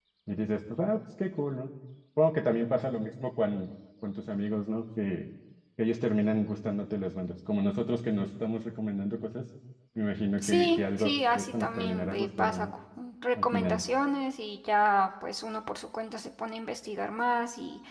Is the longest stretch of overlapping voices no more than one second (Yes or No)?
No